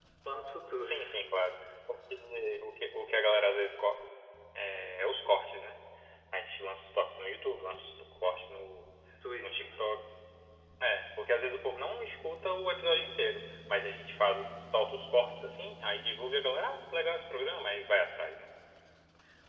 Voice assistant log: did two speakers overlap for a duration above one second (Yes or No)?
No